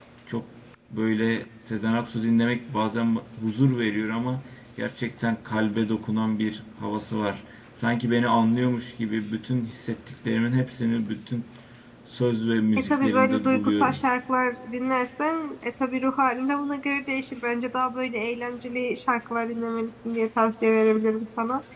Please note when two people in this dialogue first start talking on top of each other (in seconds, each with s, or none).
12.8 s